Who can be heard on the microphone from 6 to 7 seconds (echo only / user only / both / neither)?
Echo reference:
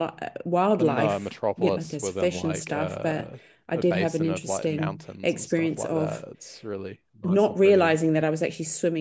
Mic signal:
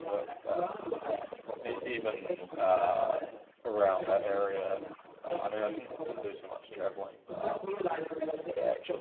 both